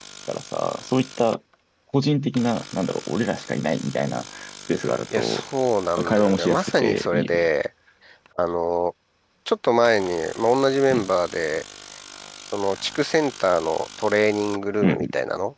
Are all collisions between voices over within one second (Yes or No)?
No